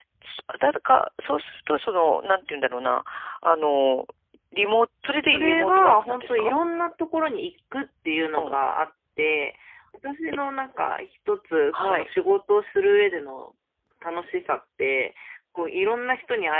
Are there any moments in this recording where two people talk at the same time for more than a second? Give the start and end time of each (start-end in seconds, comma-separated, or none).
5.3-6.5